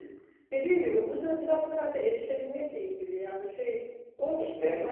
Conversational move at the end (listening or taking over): listening